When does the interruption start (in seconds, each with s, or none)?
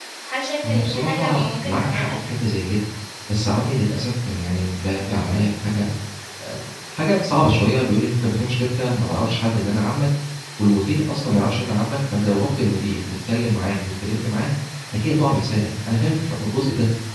0.6 s